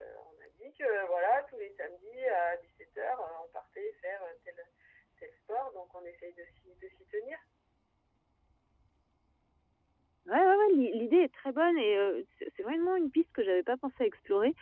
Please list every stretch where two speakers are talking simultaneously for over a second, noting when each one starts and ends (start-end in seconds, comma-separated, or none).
none